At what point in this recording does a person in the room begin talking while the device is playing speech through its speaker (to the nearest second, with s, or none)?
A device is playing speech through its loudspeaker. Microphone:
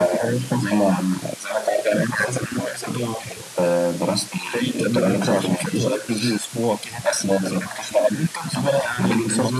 none